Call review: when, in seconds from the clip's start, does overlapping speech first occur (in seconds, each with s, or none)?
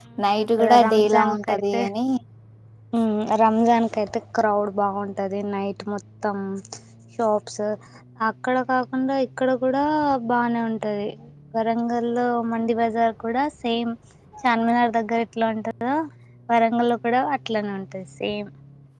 0.6 s